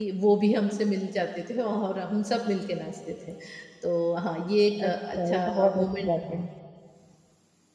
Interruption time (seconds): 5 s

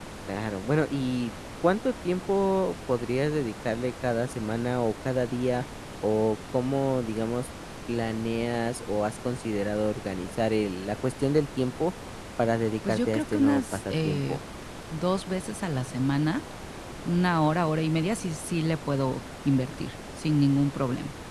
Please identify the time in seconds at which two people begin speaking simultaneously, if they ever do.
13 s

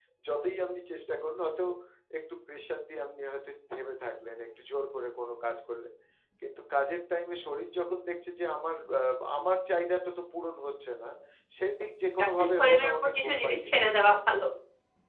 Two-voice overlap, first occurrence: 12 s

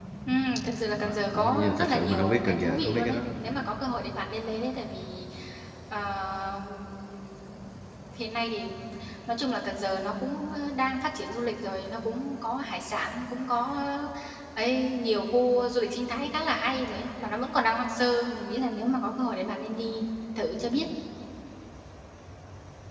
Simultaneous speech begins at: 1 s

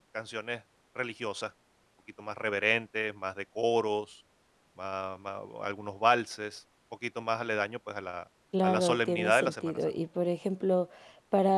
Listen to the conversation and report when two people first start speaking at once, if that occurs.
9 s

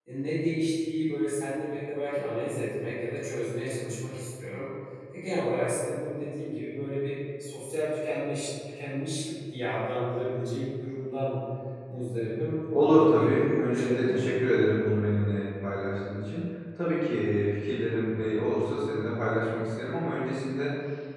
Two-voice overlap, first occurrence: 13 s

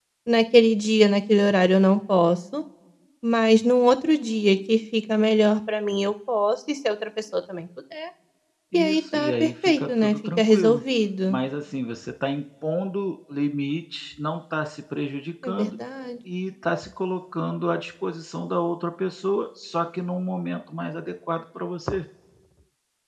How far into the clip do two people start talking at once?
9 s

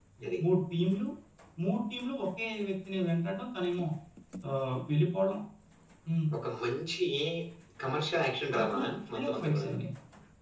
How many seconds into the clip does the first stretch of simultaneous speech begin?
9 s

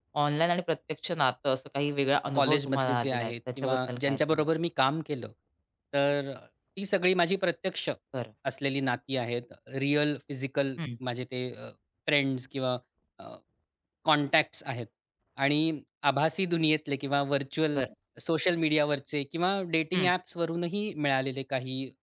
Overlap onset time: 2 s

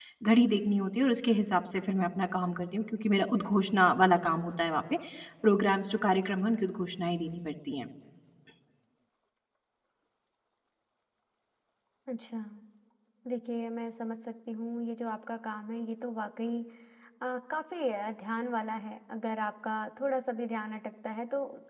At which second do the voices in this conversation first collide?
none

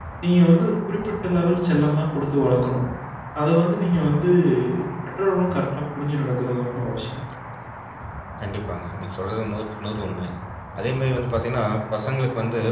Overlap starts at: none

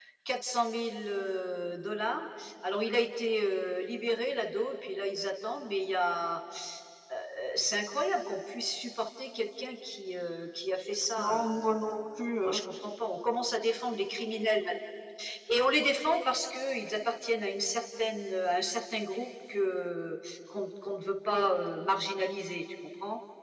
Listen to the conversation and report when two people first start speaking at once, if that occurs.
11 s

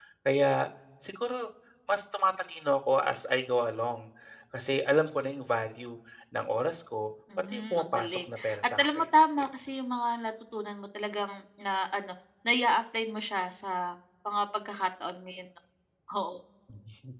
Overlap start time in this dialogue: 7 s

